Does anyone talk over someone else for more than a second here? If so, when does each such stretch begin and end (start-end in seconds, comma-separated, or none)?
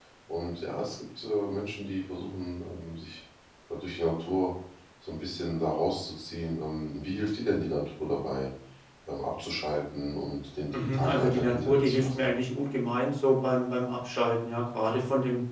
10.7-12.3